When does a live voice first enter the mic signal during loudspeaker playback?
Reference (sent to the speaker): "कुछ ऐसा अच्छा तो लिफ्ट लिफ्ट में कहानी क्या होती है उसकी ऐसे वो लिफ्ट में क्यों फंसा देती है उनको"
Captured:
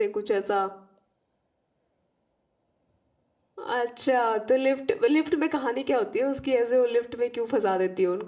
none

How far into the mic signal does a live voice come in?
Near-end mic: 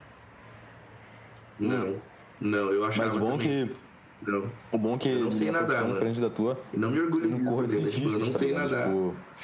none

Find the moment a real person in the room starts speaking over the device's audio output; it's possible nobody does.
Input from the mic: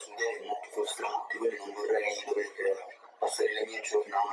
none

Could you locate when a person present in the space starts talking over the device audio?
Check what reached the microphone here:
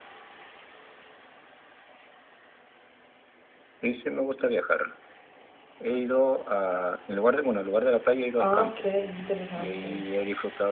8.4 s

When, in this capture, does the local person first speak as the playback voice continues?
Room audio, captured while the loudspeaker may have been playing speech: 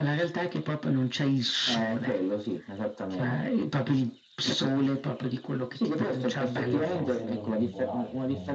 6.5 s

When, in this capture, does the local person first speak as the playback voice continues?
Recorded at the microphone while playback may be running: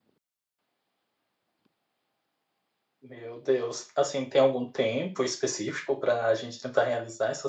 3.0 s

